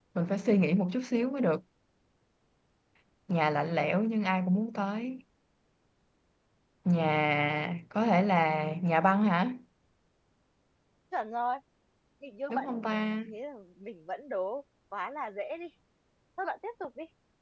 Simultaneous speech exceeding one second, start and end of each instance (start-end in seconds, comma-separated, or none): none